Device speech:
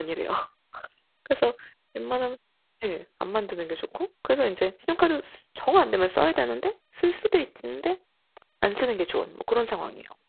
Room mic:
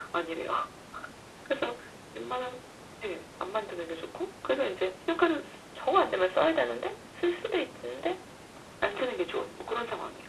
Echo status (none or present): present